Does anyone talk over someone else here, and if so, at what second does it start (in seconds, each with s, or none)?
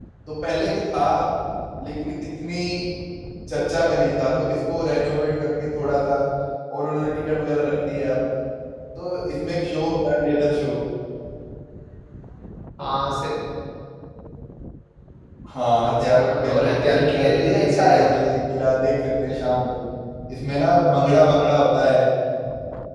15.8 s